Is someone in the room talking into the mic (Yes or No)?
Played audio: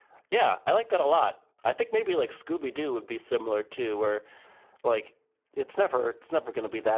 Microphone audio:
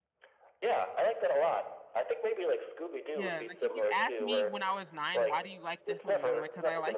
Yes